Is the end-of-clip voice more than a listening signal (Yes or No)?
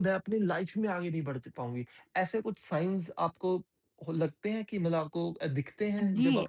Yes